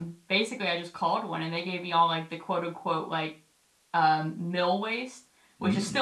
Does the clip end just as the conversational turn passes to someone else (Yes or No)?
No